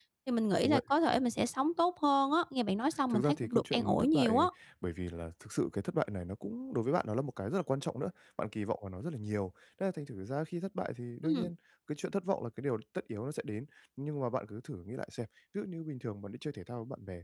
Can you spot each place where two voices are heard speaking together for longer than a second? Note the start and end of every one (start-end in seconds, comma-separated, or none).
3.1-4.5